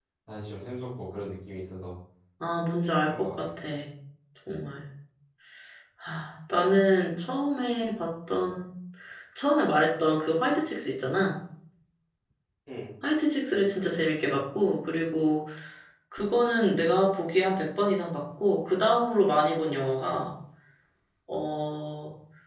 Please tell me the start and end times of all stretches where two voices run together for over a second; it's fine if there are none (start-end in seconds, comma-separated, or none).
none